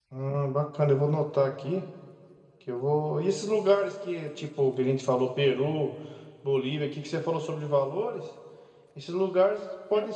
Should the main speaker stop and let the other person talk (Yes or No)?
No